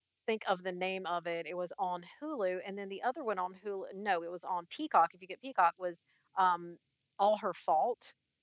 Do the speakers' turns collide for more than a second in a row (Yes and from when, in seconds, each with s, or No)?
No